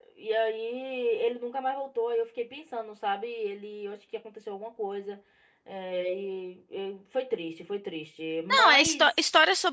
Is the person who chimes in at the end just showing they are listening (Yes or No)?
No